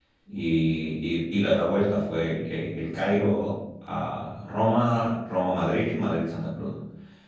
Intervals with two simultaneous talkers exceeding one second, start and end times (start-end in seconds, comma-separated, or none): none